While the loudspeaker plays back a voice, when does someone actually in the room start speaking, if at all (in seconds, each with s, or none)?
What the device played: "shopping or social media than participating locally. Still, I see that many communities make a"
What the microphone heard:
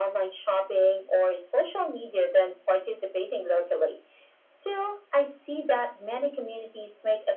none